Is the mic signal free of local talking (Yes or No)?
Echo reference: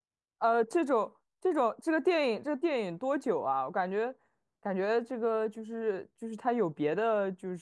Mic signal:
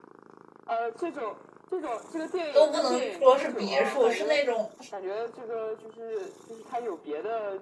No